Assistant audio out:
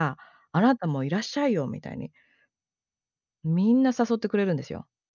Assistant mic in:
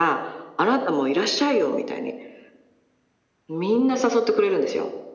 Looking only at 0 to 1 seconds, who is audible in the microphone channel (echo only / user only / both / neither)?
echo only